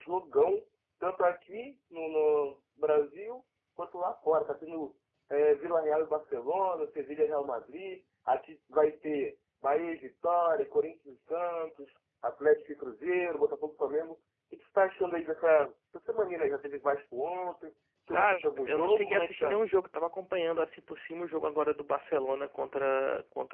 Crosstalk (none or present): present